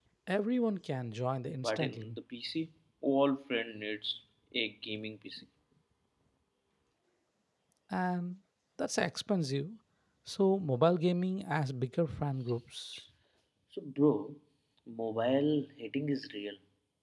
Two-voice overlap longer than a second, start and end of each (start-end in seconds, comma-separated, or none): none